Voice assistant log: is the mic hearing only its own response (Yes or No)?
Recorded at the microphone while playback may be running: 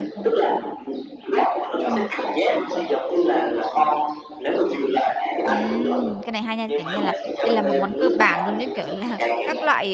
No